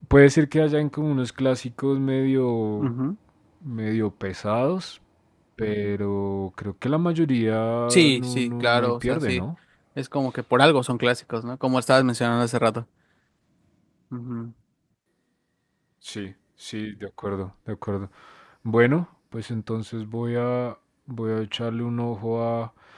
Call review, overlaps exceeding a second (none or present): present